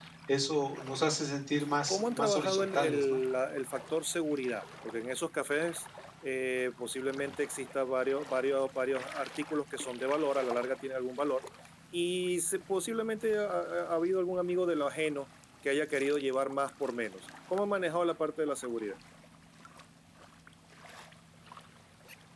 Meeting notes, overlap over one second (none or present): present